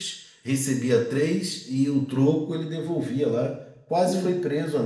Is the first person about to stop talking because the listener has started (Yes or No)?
Yes